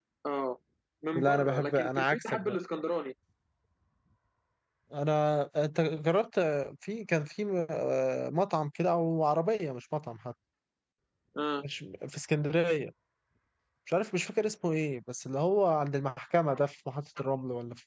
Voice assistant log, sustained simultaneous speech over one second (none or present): present